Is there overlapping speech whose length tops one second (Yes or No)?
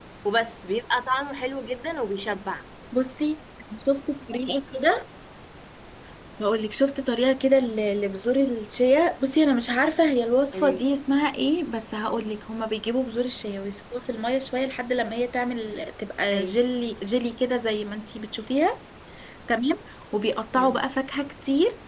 No